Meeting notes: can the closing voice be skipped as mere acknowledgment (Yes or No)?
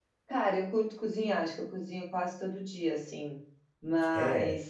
Yes